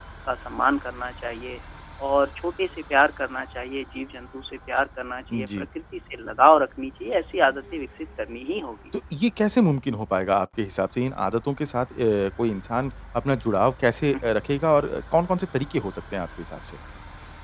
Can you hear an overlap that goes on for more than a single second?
No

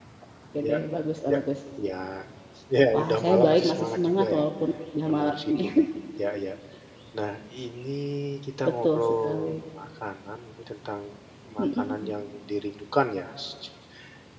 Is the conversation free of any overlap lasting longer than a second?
No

